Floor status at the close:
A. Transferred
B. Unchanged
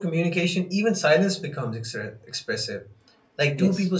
B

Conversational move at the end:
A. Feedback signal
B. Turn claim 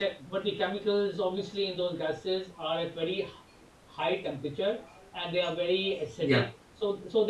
A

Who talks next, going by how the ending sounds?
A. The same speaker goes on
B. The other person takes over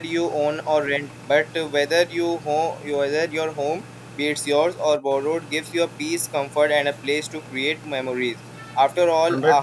A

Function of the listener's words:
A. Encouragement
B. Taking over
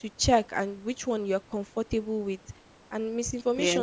A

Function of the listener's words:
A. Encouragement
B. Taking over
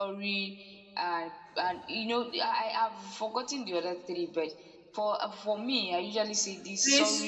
B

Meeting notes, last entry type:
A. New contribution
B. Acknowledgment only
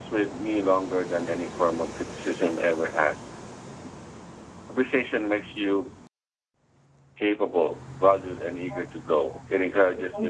B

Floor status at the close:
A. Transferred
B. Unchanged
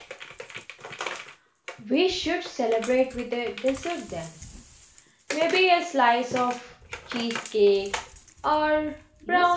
A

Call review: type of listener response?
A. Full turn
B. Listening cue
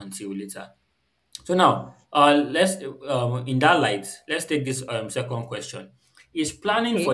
B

